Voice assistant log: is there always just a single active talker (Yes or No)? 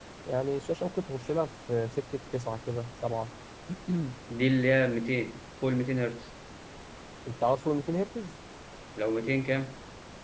Yes